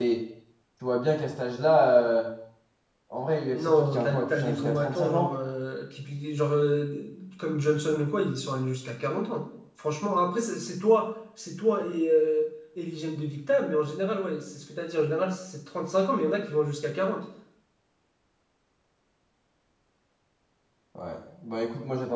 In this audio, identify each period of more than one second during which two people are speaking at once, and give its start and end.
3.5-5.3

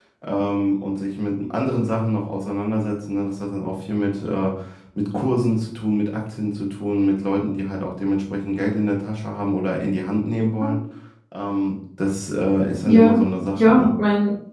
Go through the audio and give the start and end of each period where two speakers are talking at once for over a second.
none

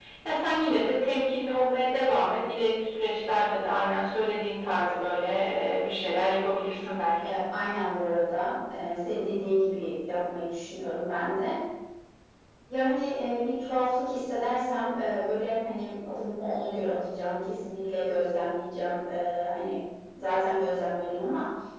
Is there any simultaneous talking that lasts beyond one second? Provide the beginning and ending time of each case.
none

